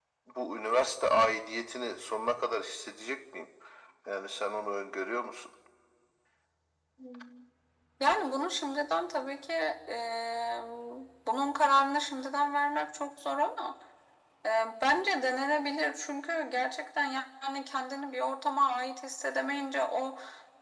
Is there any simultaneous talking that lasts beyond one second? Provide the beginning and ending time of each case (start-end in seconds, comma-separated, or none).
none